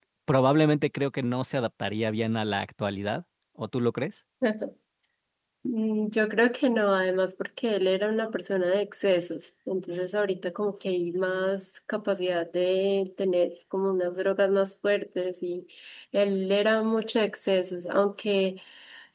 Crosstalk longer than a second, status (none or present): none